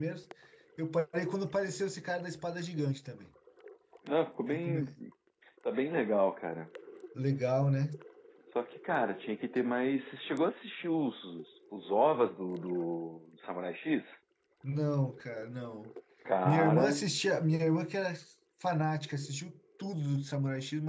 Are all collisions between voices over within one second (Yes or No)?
Yes